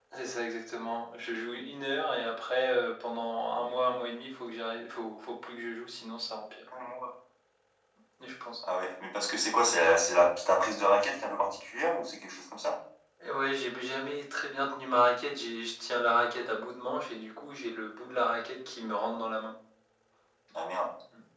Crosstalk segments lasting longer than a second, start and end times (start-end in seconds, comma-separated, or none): none